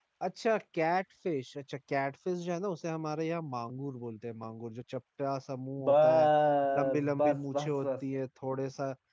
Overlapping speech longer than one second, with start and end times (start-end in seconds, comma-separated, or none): 6.8-8.0